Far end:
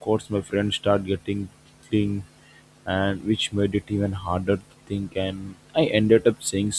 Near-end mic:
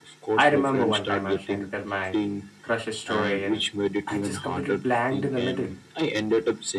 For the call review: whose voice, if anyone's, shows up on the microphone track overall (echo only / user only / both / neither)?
both